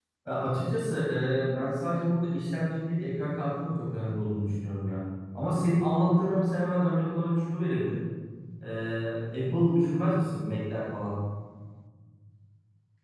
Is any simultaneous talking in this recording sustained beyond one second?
No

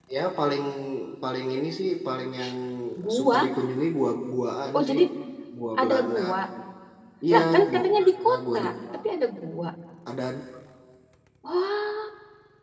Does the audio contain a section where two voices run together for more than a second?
Yes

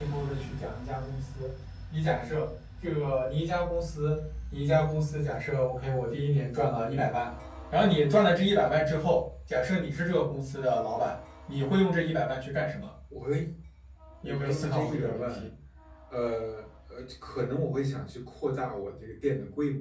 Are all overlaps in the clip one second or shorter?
No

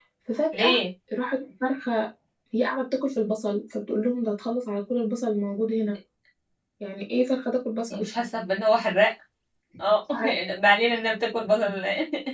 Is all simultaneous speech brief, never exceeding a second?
Yes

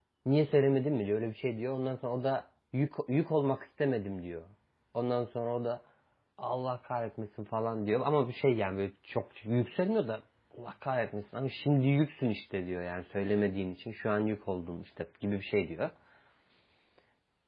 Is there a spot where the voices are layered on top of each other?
No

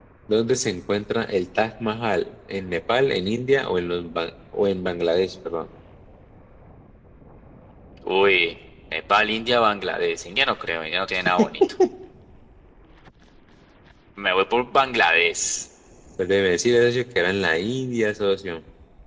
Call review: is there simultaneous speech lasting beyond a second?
No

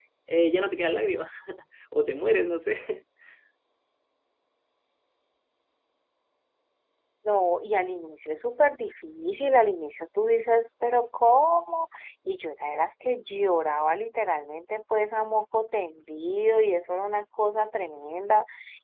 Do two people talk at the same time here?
No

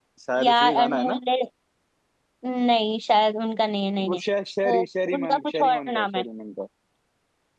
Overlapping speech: Yes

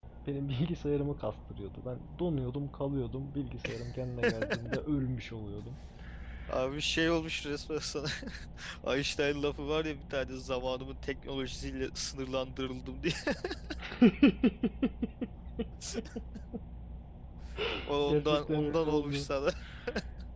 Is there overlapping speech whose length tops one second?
Yes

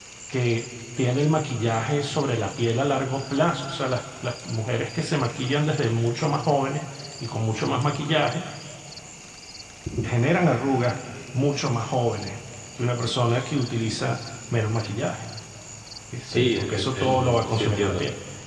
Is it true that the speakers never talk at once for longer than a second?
No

